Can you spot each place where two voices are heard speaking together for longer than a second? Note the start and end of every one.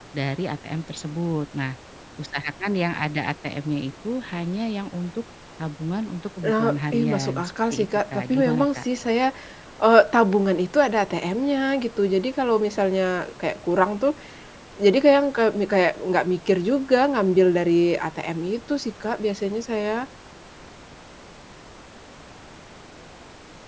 6.4-8.9

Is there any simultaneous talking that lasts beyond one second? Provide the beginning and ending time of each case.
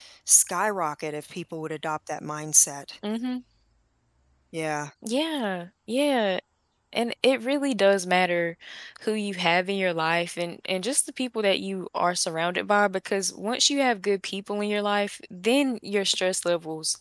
none

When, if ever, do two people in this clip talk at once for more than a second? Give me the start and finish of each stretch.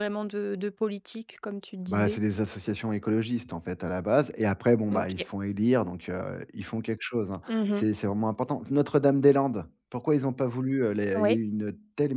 none

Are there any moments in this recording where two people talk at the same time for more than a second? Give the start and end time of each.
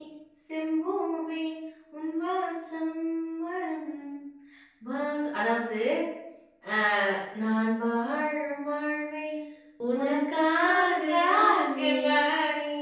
10.0-11.9

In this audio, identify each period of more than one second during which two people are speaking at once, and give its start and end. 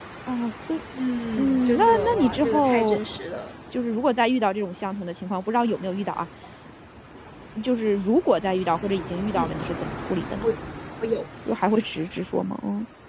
1.4-3.0

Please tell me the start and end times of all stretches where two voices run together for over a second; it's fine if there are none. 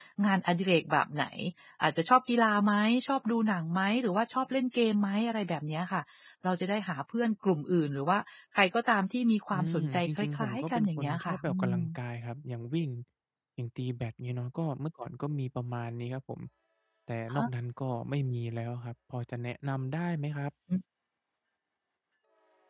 9.5-11.8

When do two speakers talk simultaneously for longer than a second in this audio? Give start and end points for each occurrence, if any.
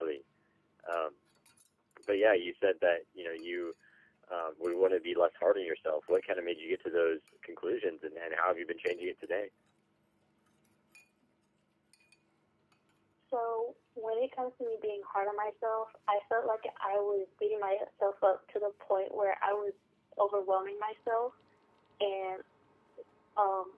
none

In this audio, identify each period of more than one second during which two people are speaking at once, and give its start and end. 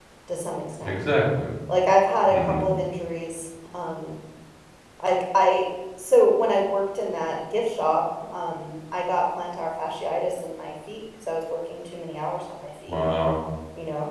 none

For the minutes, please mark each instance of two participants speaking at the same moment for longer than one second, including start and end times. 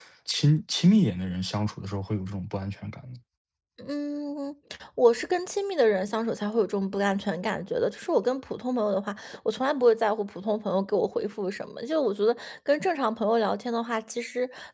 none

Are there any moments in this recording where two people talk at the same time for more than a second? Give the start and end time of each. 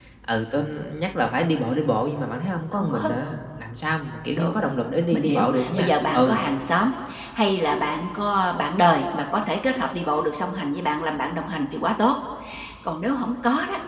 5.1-6.4

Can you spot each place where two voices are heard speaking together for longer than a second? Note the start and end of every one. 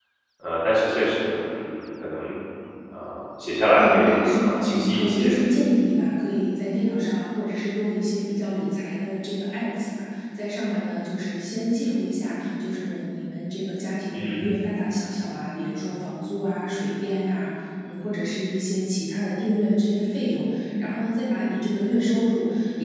3.8-5.3

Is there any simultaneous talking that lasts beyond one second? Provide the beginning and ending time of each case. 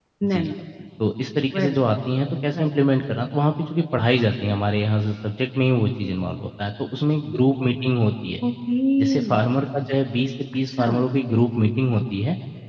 none

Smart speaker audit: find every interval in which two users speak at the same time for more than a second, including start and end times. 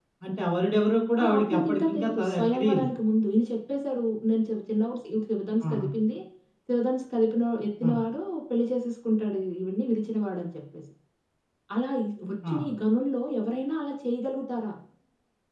1.2-2.9

